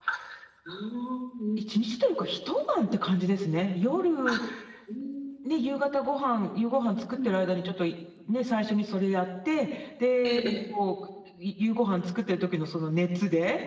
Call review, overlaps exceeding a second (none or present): none